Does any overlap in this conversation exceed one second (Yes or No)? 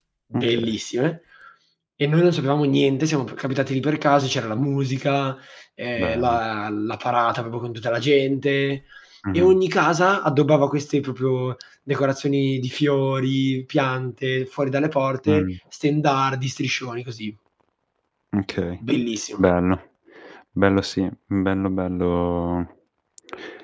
No